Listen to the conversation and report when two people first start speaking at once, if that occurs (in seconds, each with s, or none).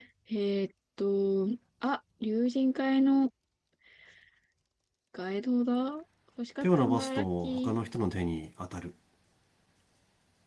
6.6 s